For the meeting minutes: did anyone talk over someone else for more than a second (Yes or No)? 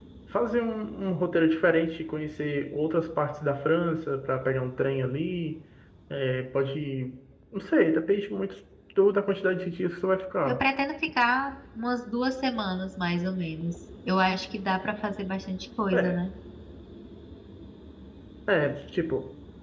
No